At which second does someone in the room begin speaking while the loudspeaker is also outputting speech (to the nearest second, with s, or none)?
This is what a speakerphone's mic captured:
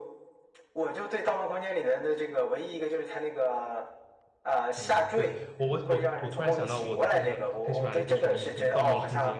5 s